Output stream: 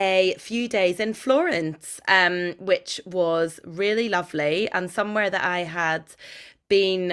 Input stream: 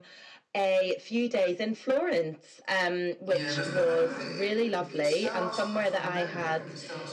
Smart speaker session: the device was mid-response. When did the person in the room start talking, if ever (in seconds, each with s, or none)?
3.3 s